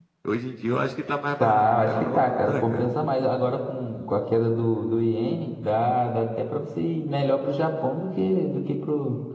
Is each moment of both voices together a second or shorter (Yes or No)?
No